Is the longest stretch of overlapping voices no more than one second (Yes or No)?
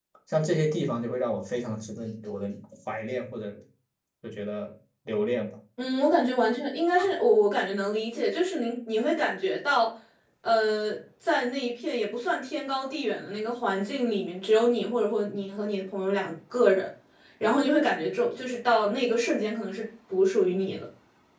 Yes